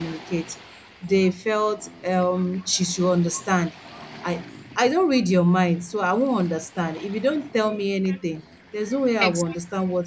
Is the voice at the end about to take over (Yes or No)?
No